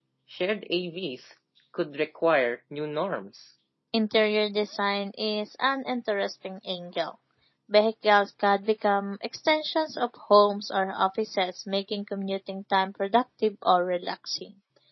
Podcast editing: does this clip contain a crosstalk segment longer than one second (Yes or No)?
No